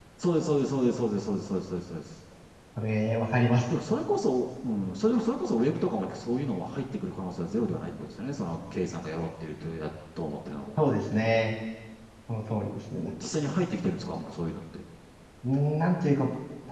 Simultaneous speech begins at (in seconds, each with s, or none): none